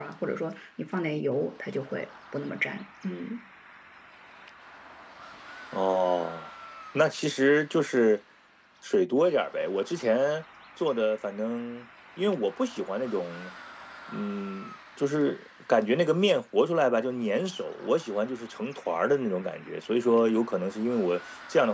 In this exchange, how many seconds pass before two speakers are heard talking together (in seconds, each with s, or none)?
none